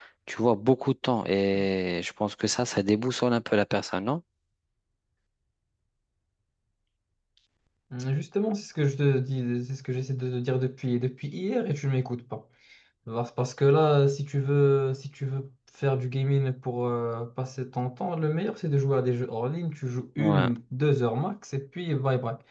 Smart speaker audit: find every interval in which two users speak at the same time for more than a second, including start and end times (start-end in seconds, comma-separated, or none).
none